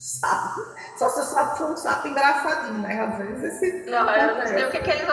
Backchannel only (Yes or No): No